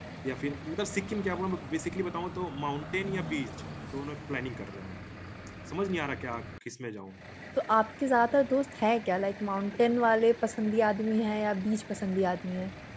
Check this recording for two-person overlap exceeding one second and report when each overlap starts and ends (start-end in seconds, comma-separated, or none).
none